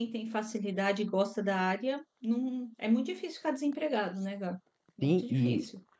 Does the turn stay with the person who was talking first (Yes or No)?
No